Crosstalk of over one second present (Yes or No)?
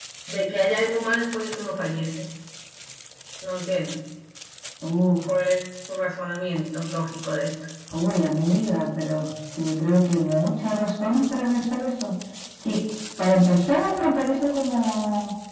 No